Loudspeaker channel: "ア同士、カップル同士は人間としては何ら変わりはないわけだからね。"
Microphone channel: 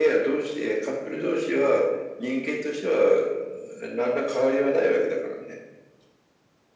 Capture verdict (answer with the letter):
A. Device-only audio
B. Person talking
A